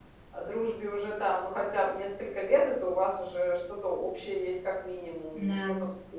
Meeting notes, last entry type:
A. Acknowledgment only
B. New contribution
A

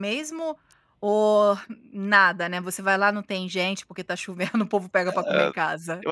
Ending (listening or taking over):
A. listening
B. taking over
B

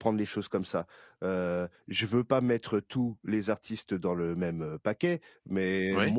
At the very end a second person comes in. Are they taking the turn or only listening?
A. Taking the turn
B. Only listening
B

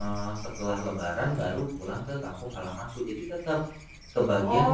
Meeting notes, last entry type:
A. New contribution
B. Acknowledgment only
A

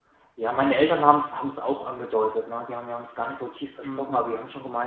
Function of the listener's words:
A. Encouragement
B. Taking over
A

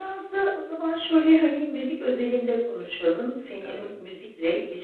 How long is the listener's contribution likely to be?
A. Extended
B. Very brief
B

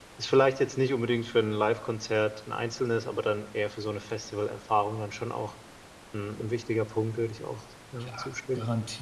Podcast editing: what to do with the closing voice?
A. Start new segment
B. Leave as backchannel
A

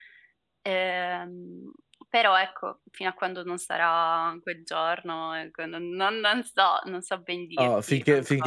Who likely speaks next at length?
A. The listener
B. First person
A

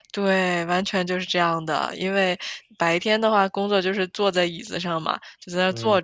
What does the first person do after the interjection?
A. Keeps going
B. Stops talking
A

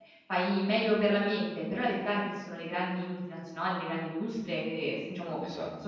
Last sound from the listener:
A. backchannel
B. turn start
A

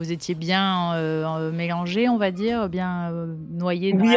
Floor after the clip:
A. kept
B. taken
B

